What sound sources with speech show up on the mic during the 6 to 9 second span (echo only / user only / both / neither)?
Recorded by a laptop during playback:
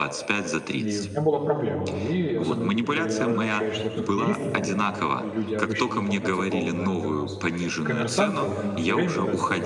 both